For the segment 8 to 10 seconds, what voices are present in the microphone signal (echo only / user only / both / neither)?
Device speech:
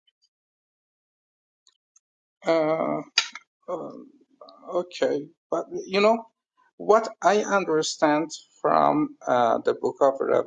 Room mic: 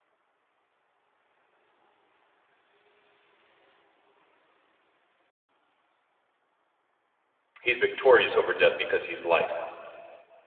user only